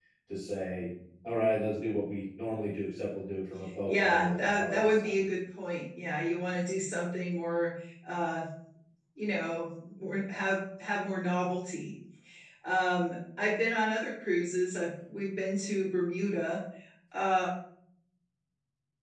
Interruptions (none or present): present